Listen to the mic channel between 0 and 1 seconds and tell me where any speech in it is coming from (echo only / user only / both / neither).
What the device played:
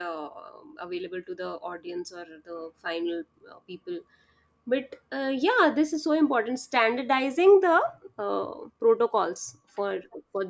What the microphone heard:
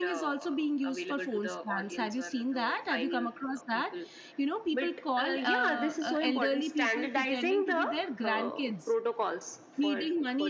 both